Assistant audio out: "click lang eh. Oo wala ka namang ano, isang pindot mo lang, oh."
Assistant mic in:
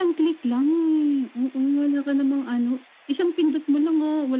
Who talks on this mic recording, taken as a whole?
echo only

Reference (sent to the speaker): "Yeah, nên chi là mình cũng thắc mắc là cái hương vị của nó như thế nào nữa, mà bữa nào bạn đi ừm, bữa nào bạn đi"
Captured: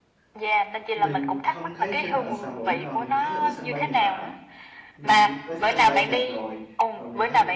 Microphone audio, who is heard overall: both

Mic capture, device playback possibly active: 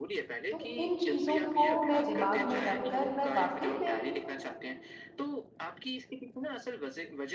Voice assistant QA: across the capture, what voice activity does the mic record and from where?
both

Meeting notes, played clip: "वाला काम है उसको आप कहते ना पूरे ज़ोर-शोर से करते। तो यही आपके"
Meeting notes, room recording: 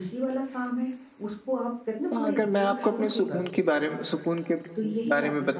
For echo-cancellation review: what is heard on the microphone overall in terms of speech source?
both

